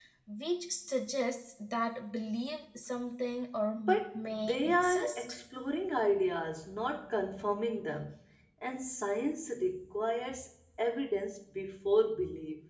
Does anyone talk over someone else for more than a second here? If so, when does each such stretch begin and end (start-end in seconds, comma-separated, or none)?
4.1-5.4